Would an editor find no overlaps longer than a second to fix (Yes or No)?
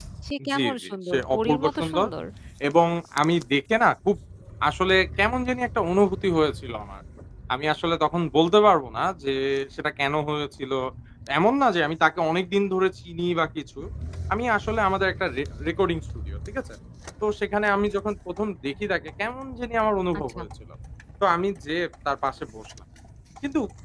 No